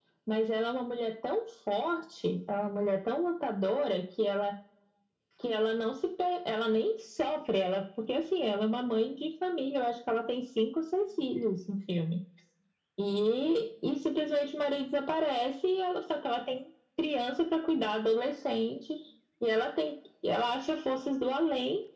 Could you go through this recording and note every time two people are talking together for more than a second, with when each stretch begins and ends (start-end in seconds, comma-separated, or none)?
none